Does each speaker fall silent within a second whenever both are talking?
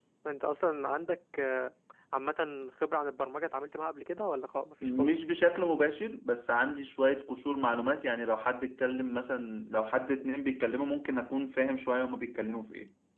Yes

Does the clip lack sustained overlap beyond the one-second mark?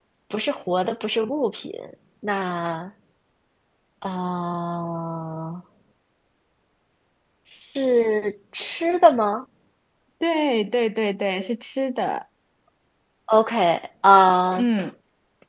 Yes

